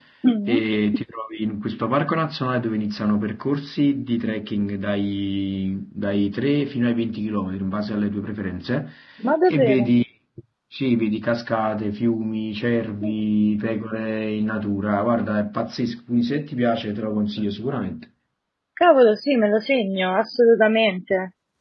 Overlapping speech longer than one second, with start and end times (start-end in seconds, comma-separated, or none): none